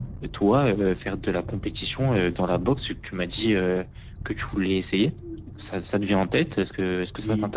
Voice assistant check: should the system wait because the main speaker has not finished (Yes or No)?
No